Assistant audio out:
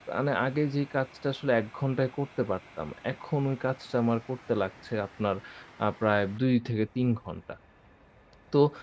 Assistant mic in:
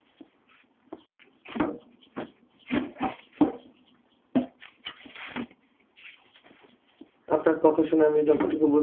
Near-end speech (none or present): present